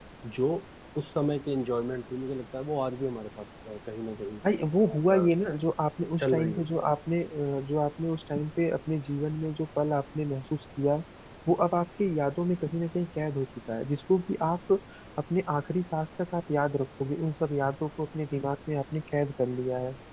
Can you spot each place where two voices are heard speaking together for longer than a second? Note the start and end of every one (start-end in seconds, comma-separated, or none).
none